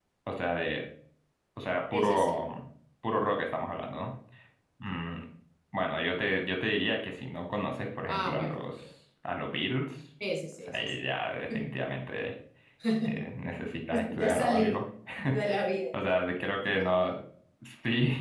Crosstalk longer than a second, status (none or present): present